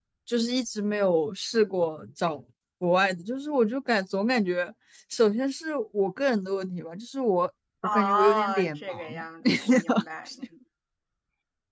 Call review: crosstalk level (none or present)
present